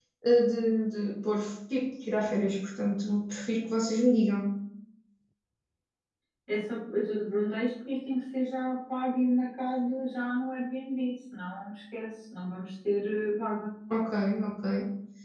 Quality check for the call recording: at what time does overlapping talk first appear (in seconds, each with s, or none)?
none